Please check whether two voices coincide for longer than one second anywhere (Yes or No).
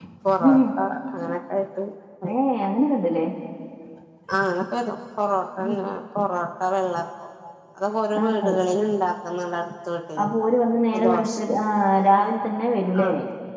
No